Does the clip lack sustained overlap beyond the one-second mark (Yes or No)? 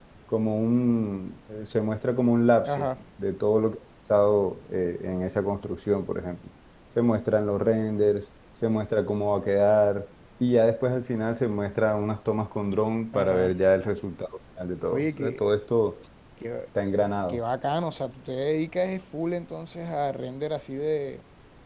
Yes